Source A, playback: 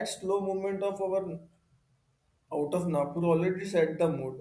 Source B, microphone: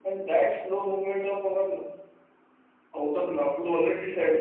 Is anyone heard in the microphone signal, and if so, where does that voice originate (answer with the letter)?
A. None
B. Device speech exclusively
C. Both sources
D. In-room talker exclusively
B